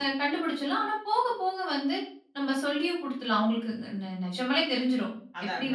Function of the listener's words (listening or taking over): listening